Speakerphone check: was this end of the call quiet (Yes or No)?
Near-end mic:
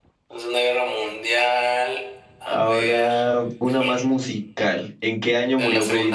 No